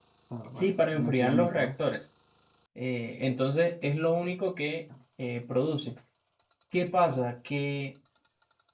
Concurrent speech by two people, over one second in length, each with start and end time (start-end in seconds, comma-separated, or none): 0.5-1.8